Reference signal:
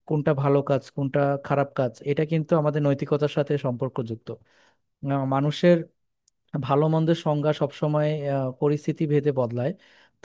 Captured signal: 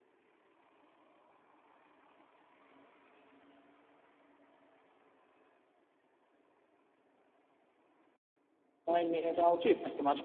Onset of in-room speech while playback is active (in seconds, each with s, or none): 8.8 s